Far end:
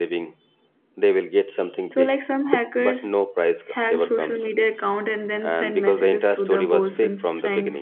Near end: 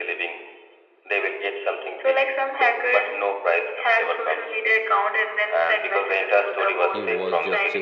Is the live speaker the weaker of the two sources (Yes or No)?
Yes